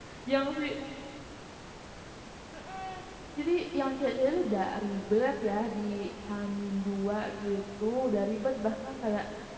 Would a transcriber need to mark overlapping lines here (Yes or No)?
No